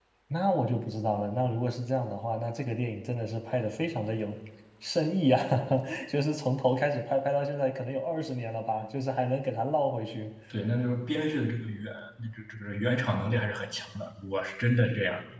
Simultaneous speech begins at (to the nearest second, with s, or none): none